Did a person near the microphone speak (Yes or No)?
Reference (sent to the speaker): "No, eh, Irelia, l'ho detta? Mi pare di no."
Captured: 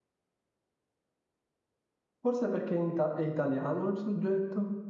Yes